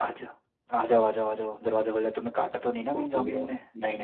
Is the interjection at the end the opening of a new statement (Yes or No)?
Yes